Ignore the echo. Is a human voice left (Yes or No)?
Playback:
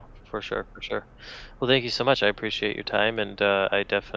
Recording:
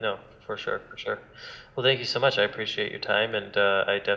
No